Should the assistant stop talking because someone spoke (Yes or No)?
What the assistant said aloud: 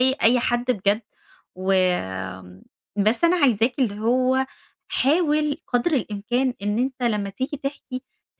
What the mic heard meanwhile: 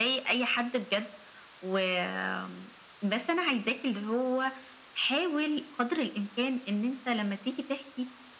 No